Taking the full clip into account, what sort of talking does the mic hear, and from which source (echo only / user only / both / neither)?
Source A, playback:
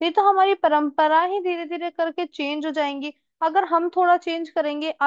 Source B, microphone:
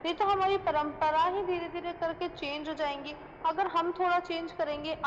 echo only